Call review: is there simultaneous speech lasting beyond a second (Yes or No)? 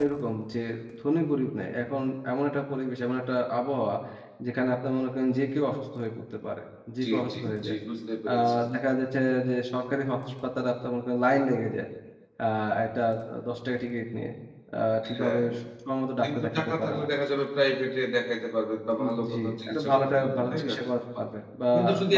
Yes